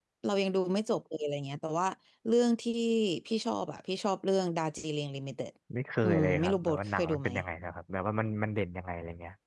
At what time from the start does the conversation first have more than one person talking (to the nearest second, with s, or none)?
6 s